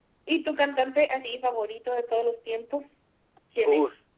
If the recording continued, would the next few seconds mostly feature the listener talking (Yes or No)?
Yes